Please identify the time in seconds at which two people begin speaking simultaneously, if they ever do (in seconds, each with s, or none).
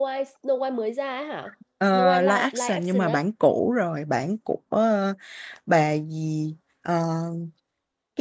1.8 s